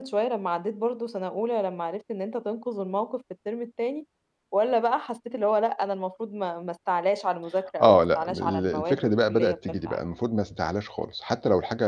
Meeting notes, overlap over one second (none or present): present